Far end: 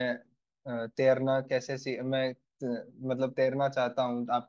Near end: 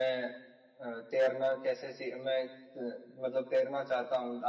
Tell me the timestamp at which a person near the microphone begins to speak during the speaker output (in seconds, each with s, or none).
none